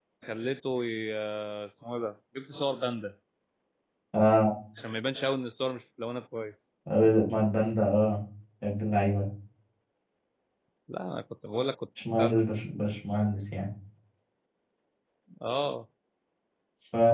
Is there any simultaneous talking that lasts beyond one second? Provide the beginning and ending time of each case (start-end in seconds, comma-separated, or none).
none